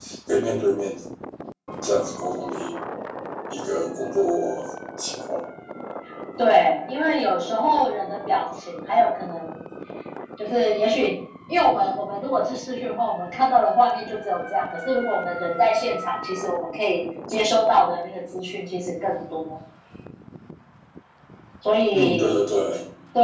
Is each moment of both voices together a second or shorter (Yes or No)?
Yes